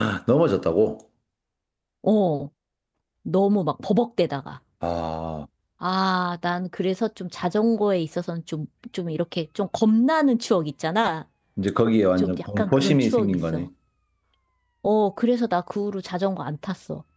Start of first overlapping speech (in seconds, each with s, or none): 12.2 s